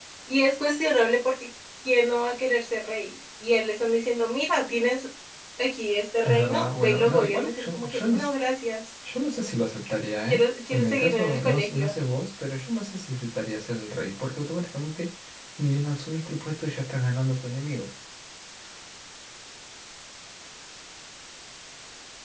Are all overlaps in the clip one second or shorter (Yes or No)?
No